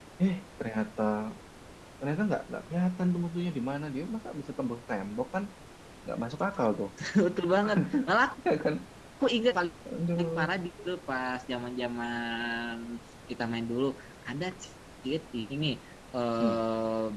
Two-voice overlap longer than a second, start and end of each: none

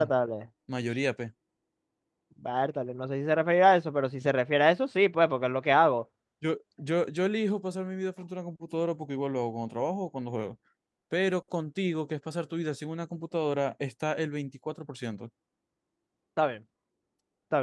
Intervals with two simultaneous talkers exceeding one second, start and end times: none

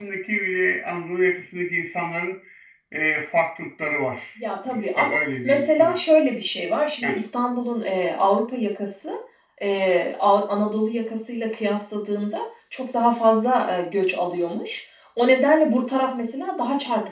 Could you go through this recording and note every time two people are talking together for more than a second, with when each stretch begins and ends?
4.7-6.0

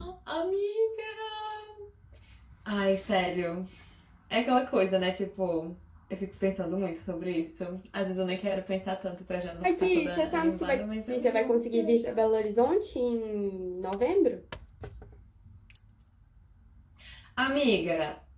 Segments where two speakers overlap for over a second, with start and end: 9.6-12.2

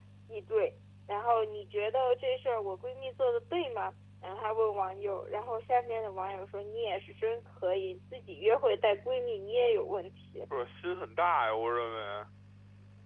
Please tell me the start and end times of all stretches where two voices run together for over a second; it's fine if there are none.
none

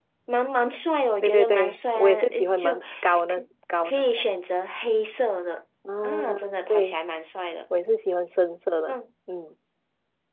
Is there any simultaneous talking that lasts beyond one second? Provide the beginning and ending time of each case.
1.2-2.8

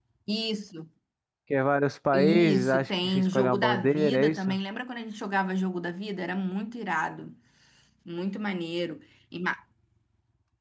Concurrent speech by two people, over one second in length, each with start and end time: 2.1-4.6

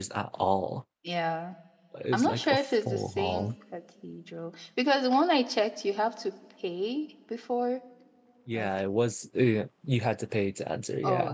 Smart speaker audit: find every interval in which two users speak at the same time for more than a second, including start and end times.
2.1-3.5

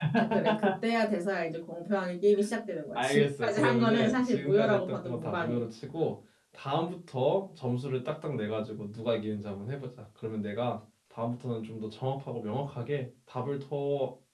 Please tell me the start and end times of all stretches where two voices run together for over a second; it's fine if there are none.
3.0-5.6

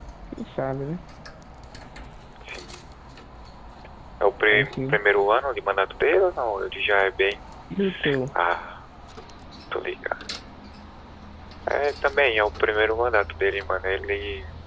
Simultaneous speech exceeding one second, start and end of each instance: none

